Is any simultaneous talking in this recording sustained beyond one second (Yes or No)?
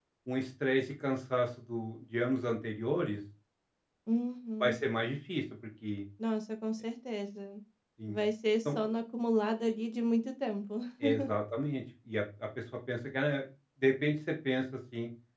No